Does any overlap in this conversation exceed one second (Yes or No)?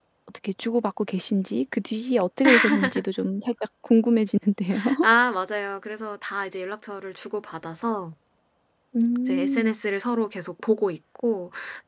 No